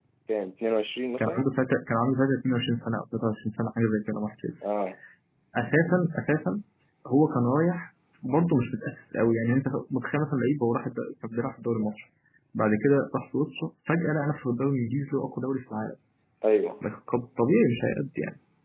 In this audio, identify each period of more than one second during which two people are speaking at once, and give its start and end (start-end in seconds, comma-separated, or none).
none